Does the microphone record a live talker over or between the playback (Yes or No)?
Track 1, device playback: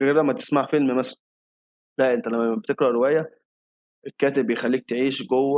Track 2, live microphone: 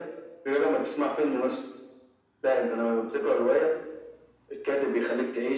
No